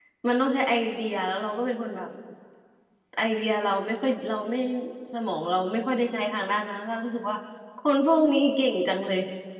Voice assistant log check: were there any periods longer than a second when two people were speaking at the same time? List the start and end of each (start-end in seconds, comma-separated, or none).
none